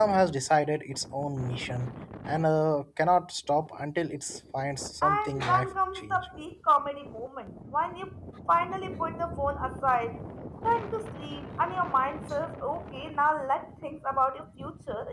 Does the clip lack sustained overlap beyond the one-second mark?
No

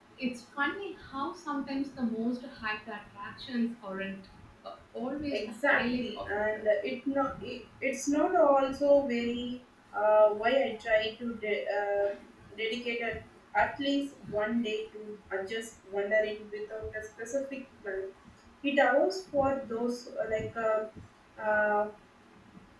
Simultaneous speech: Yes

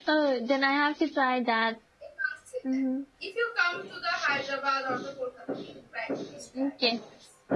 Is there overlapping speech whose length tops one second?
No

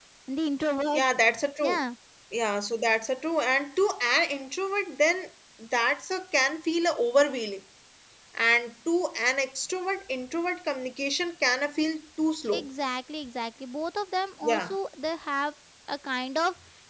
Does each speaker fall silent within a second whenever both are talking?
Yes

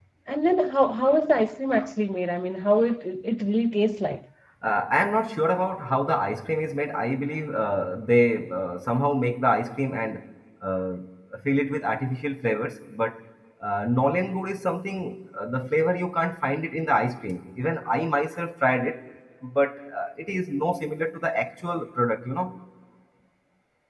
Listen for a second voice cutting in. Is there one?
No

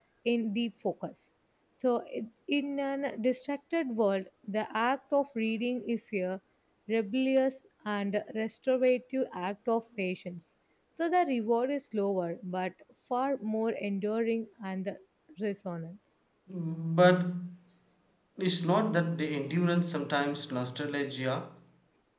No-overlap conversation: Yes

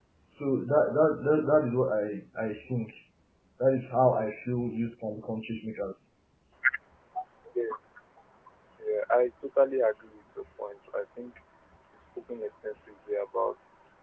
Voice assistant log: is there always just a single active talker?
Yes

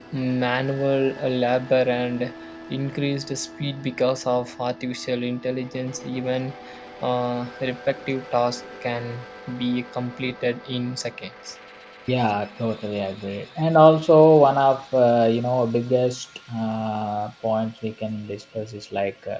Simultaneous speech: No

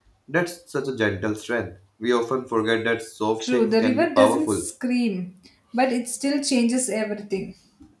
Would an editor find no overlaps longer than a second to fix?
No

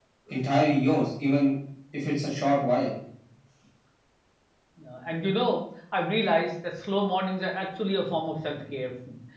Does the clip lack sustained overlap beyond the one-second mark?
Yes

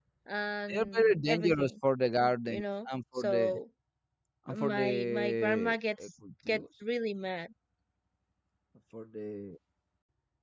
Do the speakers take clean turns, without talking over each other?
No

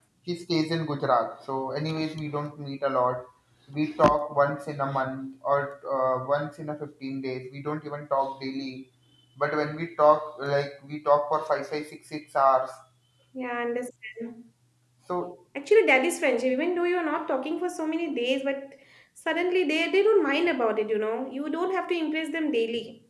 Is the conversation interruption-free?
Yes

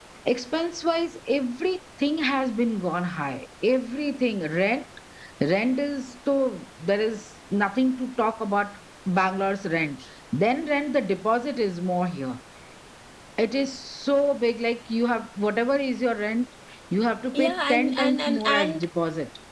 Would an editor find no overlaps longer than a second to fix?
No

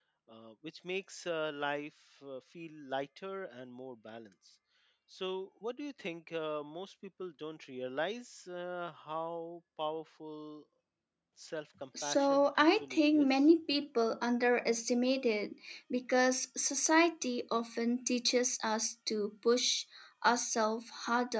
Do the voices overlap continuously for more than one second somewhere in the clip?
Yes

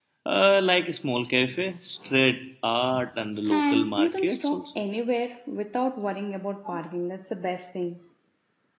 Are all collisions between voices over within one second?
No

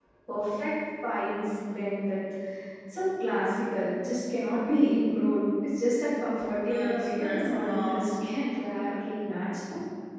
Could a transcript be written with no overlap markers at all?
No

